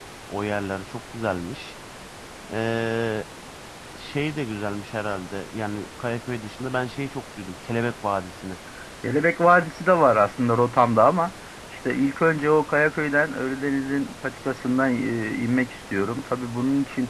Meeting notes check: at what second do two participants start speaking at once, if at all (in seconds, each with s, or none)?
none